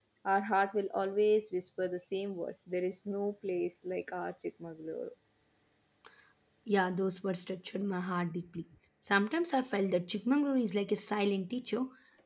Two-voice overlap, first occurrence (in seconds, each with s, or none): none